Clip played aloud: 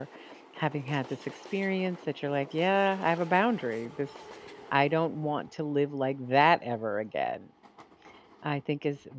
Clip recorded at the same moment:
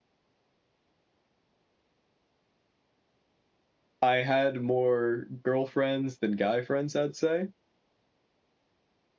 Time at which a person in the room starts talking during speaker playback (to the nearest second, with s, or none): 4 s